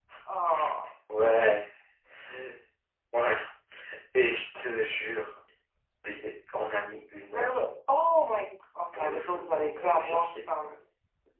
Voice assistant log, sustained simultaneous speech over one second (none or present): present